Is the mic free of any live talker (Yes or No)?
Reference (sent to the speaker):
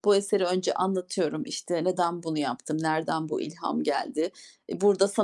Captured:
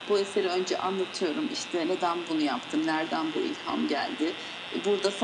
Yes